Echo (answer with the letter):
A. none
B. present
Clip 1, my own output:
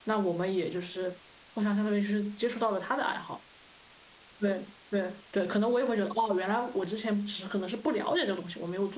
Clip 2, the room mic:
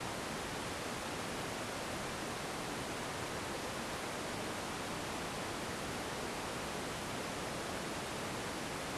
A